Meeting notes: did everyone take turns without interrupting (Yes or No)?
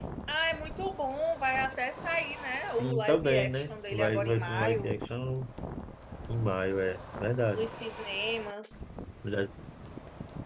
No